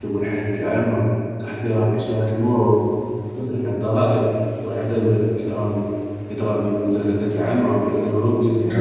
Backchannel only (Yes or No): Yes